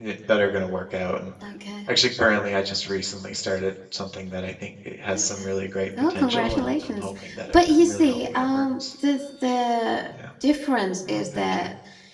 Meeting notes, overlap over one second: present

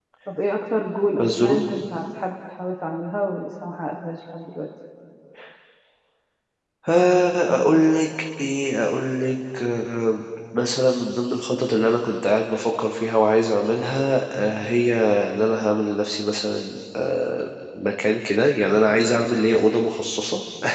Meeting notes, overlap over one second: none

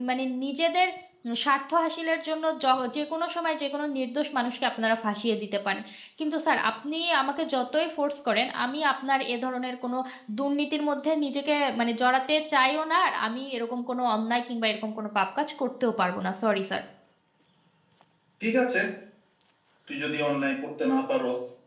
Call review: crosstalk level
none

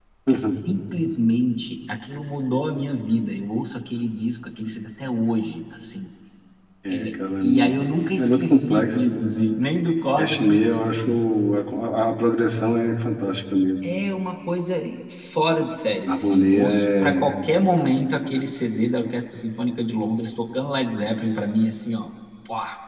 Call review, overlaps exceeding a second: present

